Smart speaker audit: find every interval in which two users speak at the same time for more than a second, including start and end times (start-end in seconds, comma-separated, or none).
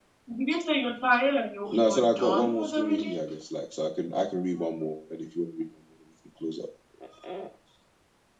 1.7-3.2